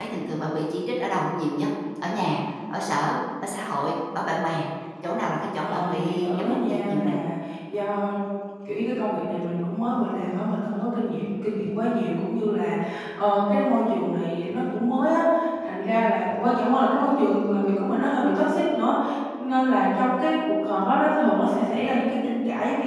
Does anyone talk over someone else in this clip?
Yes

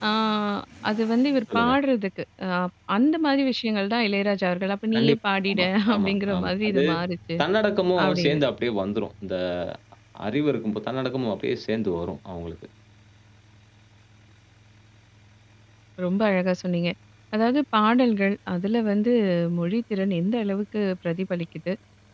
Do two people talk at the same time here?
Yes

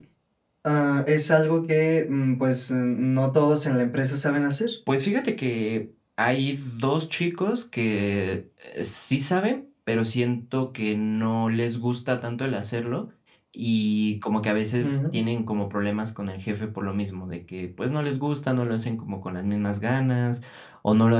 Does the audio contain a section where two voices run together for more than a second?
No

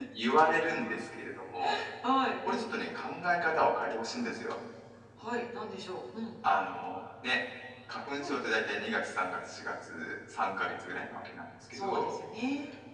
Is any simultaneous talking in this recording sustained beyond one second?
No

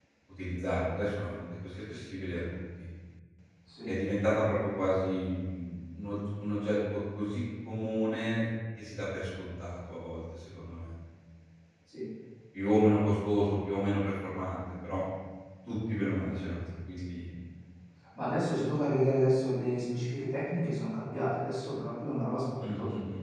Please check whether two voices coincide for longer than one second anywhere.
No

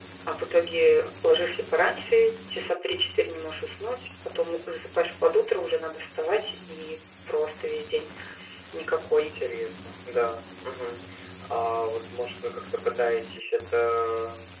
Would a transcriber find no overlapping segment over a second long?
Yes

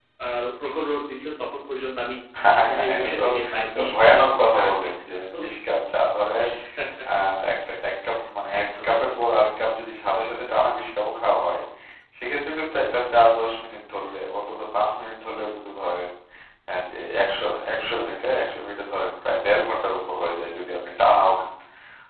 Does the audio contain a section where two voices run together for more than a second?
Yes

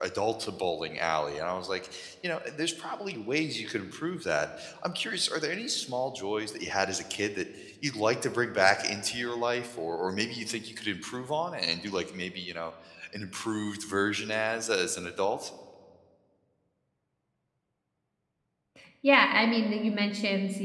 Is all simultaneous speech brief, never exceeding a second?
Yes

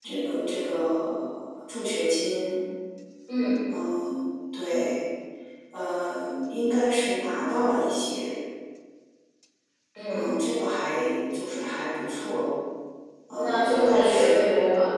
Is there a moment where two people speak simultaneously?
Yes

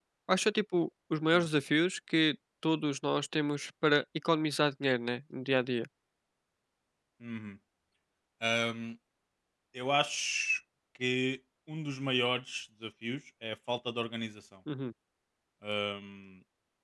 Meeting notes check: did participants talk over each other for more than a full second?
No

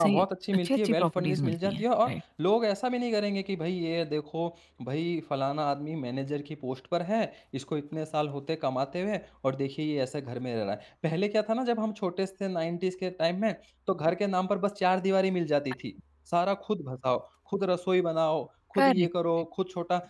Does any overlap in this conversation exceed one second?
Yes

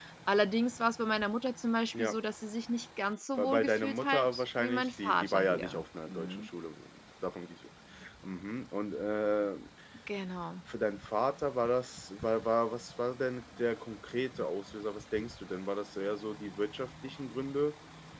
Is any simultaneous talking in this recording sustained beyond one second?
Yes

